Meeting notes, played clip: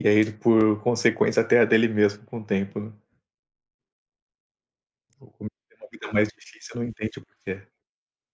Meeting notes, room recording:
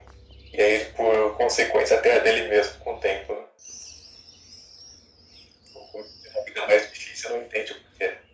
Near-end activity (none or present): none